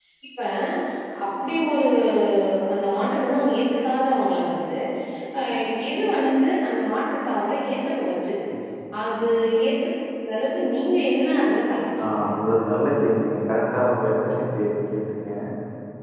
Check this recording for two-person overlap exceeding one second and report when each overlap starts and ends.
none

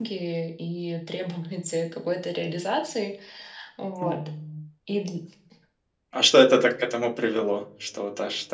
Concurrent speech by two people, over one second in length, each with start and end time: none

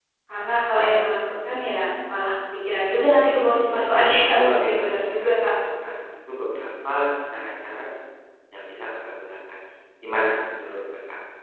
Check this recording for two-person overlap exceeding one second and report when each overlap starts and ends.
3.7-5.5

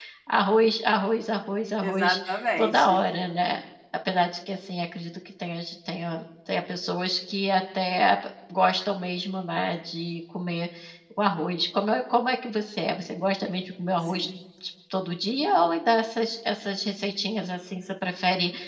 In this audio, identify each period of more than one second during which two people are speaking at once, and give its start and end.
none

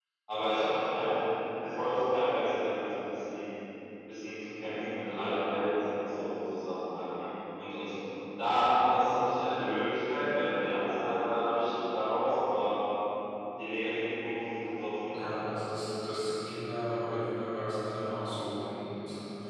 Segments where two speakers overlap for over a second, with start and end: none

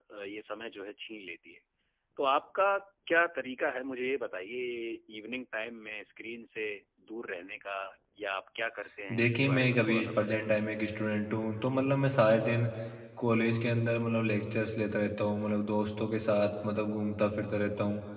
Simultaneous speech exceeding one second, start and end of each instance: 9.2-10.4

